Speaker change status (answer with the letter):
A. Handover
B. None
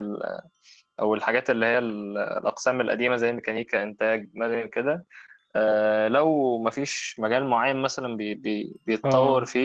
B